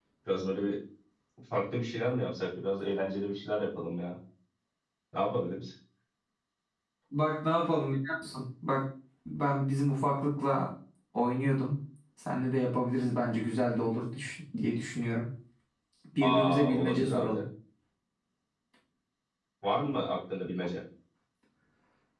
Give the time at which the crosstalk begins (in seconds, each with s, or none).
16.2 s